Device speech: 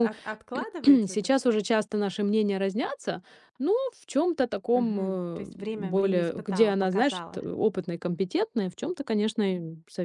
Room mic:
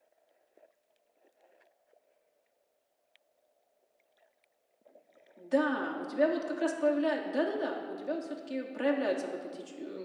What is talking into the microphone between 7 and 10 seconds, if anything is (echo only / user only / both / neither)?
user only